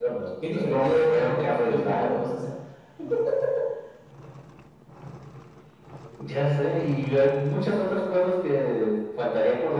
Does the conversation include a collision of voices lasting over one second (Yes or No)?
Yes